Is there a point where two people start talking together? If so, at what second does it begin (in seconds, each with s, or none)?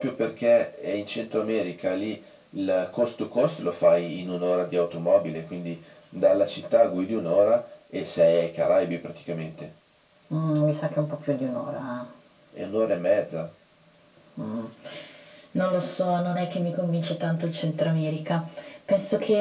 none